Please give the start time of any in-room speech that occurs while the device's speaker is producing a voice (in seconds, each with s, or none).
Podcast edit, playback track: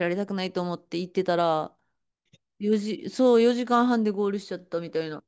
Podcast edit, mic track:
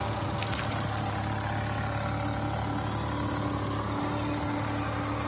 none